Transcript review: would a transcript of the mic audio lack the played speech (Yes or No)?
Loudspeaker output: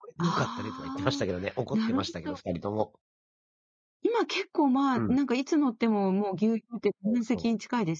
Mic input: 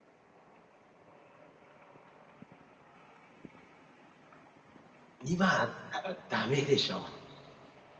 Yes